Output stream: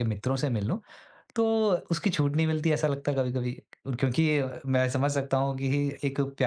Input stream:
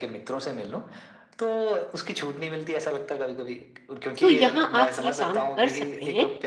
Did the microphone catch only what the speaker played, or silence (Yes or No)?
No